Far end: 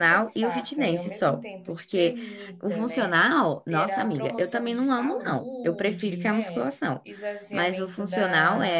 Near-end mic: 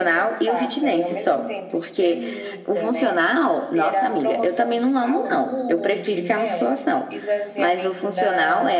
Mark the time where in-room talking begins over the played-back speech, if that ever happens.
none

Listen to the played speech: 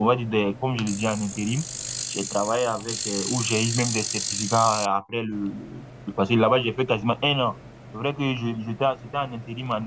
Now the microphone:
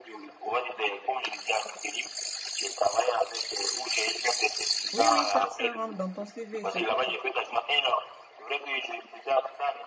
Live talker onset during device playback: 4.9 s

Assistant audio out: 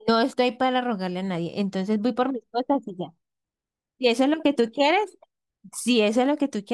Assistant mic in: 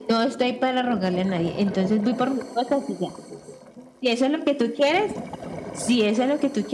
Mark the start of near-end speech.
none

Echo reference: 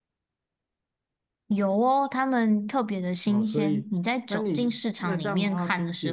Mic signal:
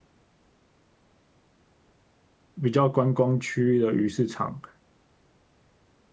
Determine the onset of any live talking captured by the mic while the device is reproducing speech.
2.6 s

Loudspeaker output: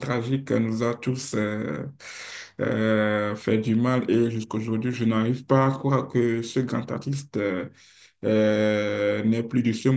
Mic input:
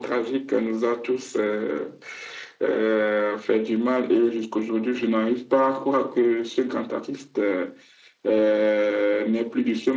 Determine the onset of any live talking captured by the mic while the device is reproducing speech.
none

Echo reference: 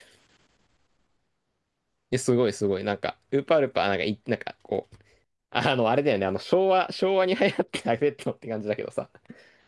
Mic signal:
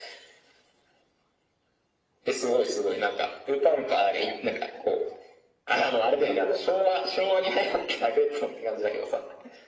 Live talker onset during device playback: none

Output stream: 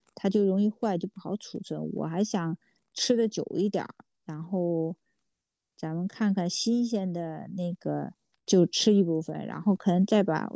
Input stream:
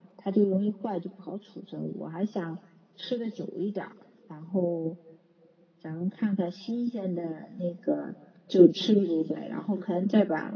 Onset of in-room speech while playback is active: none

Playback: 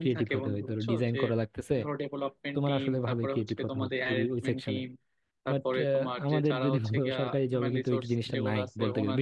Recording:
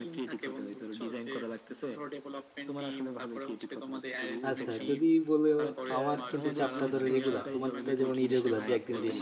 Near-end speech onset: 4.5 s

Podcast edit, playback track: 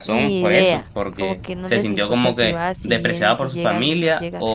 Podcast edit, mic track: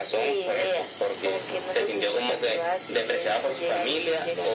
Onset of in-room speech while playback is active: none

